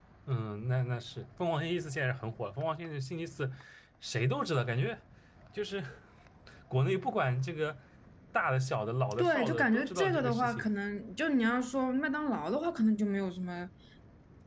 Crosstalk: present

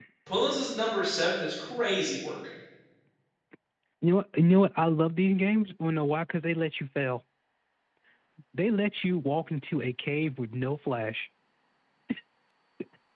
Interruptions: none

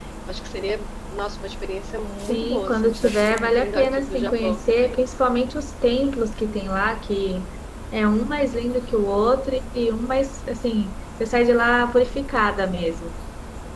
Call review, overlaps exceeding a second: present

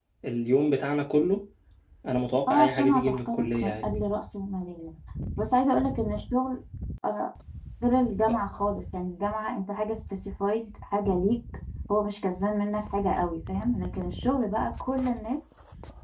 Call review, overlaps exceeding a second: present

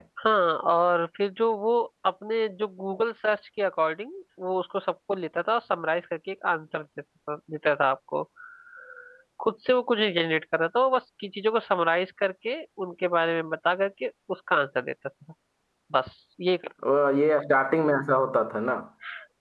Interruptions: none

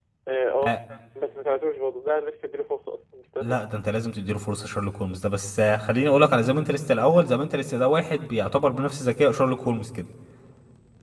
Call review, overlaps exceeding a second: none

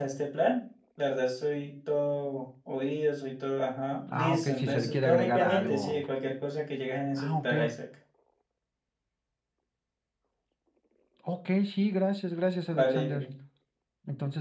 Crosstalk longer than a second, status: present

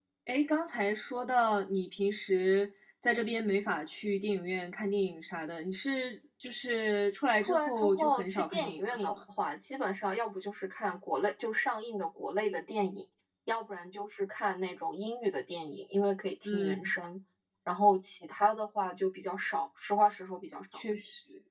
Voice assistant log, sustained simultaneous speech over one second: present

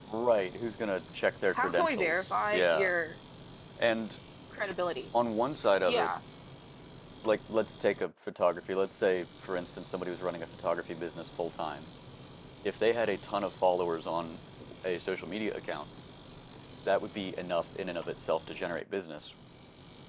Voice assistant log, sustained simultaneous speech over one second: present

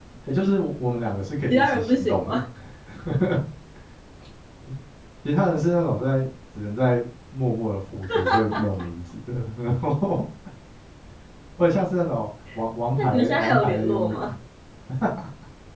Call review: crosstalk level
present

